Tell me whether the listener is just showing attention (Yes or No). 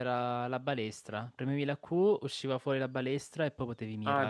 No